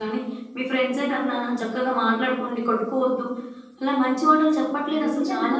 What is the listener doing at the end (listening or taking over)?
taking over